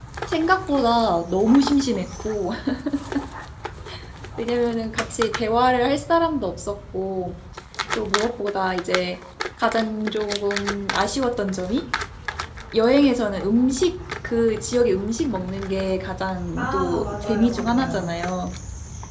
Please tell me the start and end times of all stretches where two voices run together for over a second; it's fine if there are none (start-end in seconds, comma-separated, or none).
16.6-18.1